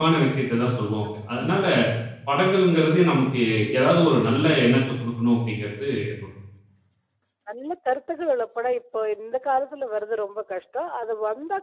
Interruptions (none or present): none